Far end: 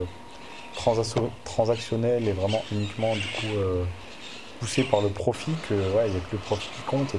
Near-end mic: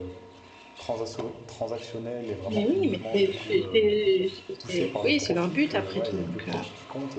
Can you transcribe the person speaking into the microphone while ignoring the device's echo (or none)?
Mais oui, mais c'est c'est c'est c'est c'est oui, c'est leur but après tout donc heu,